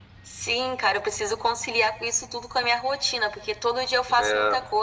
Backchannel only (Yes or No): Yes